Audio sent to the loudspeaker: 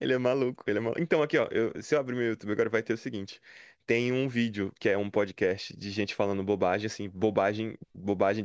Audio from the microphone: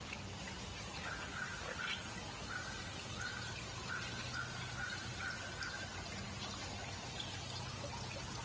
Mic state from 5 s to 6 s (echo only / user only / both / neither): neither